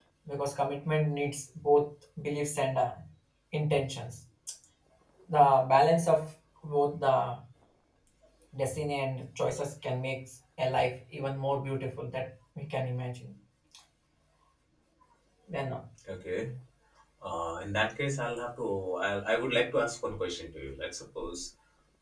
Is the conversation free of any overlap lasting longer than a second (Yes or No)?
Yes